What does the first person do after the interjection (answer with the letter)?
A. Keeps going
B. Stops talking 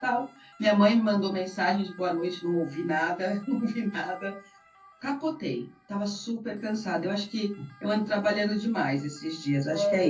B